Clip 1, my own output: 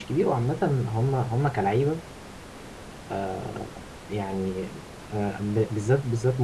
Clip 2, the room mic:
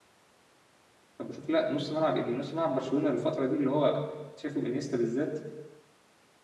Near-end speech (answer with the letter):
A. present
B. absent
A